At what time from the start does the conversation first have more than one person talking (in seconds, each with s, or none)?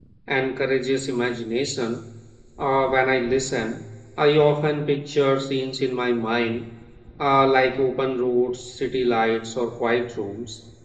none